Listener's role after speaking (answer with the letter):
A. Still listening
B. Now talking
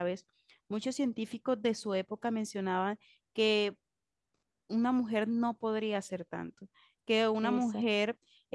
A